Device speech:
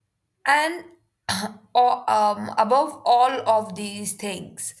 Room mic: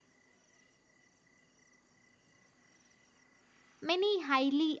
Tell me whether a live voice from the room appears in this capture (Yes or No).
Yes